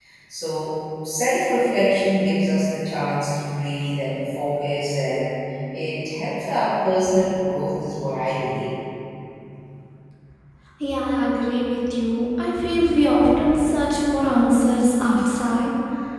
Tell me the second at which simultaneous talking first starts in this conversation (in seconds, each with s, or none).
none